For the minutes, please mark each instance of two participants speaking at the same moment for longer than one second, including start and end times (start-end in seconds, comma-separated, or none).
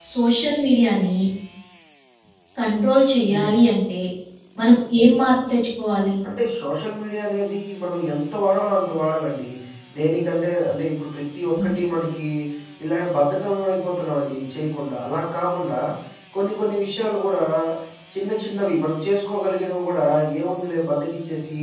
none